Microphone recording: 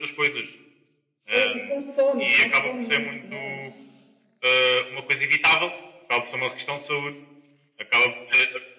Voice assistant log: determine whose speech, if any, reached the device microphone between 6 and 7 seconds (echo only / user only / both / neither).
echo only